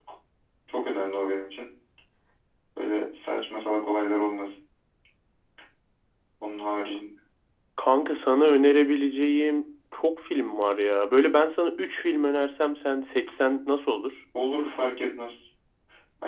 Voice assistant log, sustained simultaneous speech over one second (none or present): none